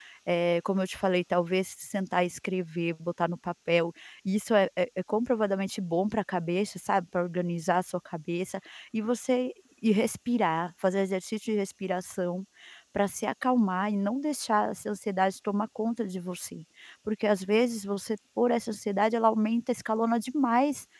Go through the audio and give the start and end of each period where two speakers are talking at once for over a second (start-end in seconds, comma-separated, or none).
none